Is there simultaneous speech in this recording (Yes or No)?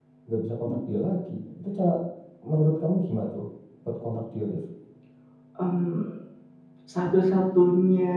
No